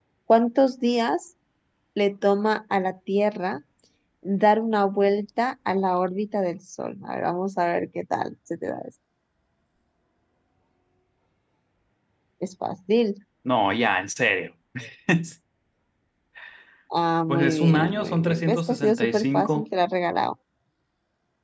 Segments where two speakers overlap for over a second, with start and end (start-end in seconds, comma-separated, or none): 17.3-19.6